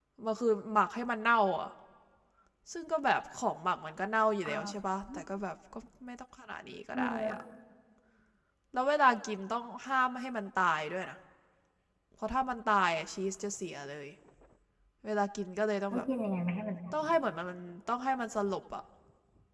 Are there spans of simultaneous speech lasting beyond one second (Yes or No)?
No